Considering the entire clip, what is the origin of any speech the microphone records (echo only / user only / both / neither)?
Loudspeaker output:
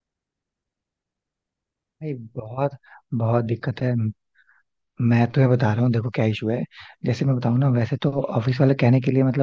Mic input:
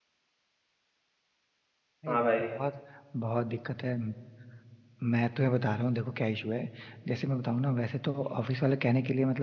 both